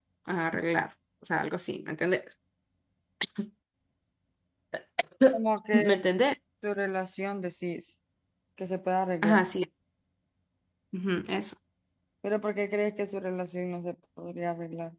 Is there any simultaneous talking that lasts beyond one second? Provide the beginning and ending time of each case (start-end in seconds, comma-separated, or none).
none